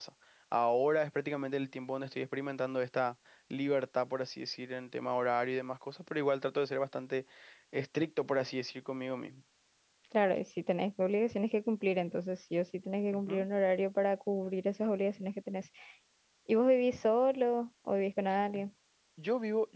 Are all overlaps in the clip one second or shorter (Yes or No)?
Yes